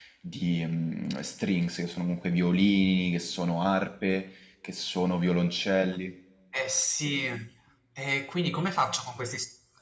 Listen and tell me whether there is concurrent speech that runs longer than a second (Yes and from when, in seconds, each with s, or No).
No